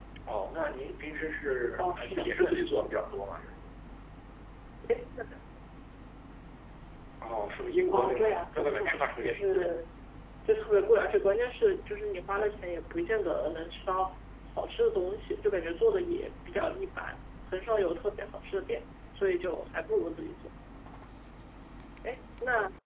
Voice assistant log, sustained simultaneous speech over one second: present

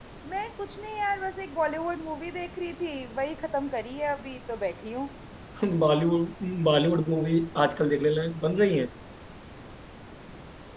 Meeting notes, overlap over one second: none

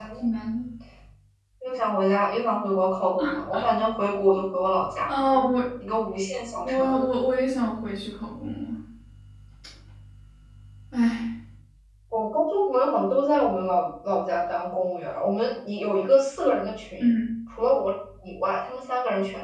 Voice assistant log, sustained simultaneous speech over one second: none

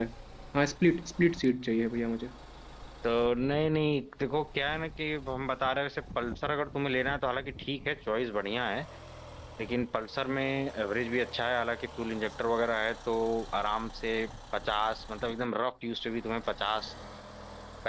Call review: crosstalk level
none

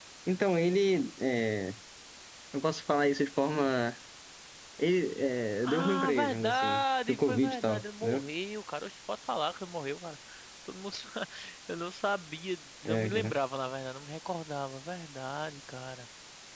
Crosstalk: present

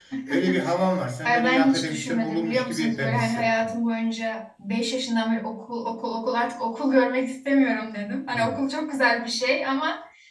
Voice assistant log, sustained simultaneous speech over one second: present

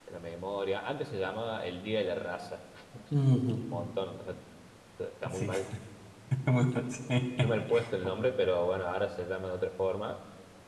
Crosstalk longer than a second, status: none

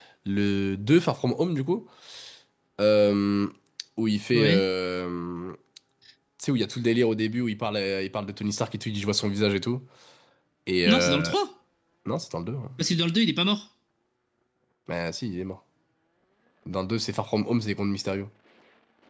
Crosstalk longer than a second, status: none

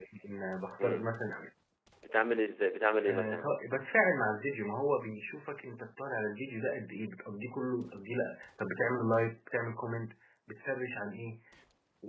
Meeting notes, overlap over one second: none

